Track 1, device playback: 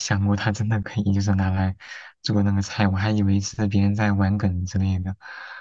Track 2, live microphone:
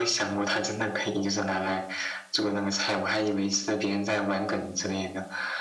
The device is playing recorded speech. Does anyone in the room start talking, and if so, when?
none

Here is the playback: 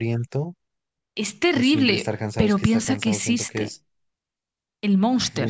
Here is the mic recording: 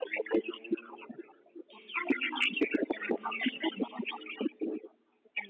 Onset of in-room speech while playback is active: none

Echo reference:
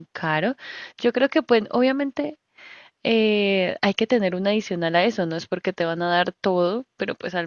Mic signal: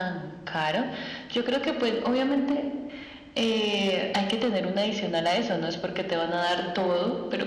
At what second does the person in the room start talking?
none

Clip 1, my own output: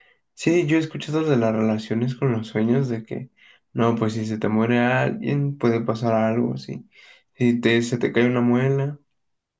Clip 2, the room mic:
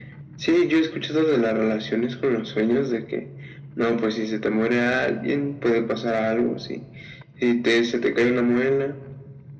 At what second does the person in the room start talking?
none

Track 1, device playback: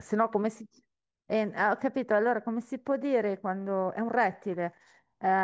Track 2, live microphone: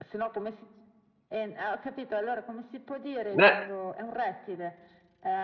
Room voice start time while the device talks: 3 s

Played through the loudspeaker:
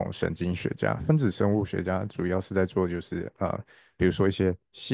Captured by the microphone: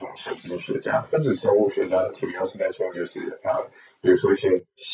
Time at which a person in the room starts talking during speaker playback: none

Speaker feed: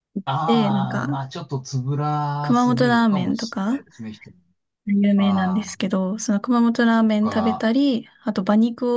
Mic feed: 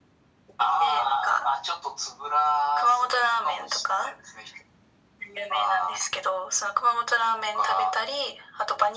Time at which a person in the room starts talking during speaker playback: none

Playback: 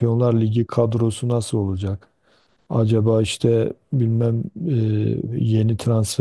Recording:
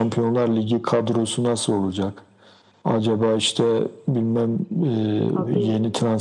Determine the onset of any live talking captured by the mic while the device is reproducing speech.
5 s

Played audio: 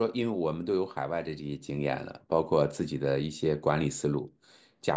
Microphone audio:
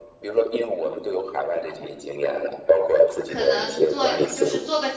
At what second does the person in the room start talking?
3 s

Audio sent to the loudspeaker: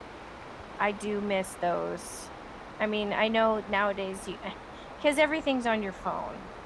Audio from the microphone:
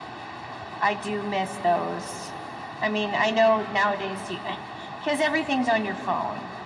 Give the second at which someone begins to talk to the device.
none

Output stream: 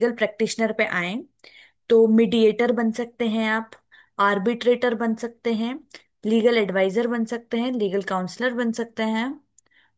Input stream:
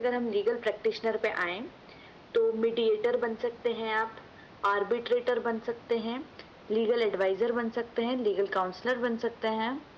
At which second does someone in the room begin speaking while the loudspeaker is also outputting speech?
none

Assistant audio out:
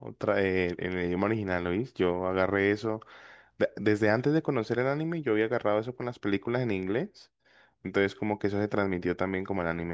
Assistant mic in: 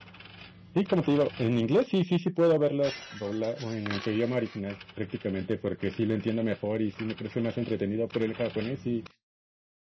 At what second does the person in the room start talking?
1 s

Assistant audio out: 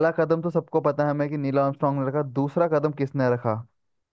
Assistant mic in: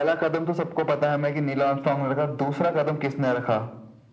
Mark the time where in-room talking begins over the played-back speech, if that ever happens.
none

